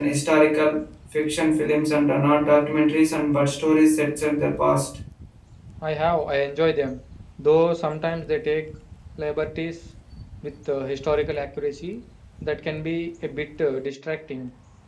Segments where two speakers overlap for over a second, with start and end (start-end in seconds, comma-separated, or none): none